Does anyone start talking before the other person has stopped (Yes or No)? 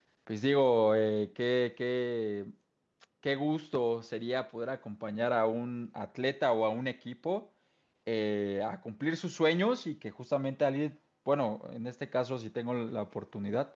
No